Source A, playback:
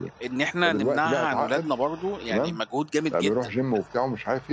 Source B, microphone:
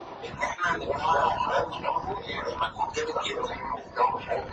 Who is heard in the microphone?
echo only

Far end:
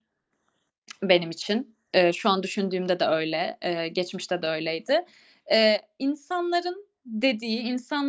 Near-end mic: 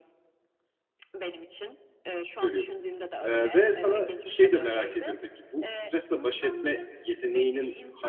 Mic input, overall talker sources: both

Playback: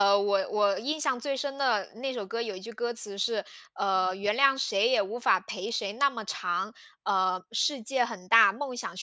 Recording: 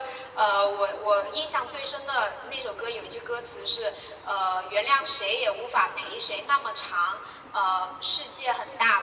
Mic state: echo only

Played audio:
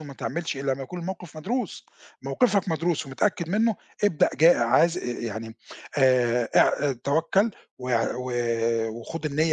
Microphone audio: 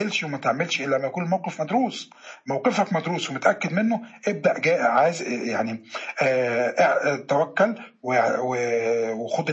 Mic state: echo only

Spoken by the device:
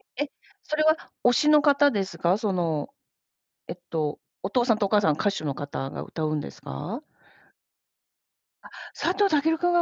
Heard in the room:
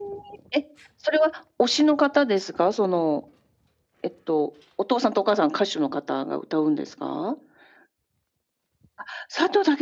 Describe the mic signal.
echo only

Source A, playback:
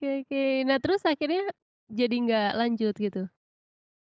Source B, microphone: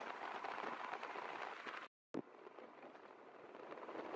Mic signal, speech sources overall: neither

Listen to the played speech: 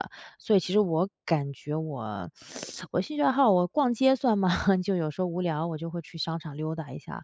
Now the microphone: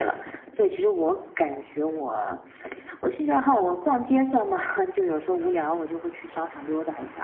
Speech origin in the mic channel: echo only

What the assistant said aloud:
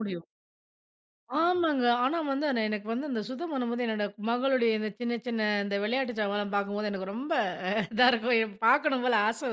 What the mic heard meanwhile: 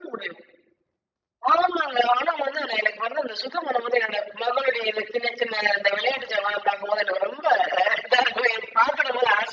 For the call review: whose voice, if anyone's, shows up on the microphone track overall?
echo only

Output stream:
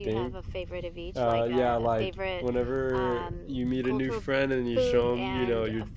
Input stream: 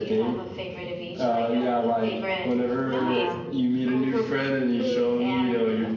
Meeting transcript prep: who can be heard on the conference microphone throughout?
both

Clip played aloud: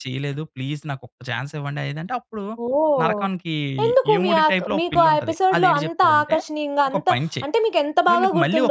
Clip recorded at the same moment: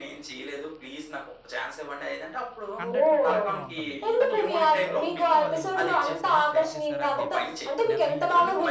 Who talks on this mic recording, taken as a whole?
both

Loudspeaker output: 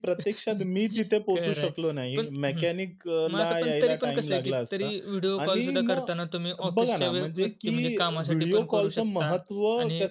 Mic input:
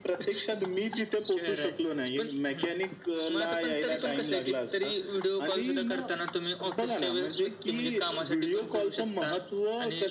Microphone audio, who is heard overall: echo only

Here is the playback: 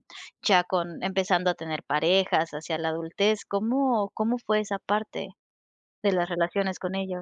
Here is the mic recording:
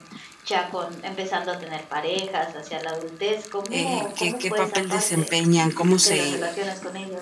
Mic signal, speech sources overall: both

